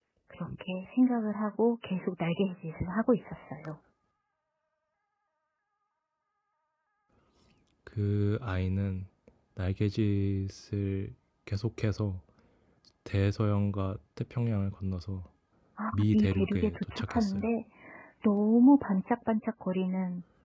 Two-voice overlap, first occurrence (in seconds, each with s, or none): 15.9 s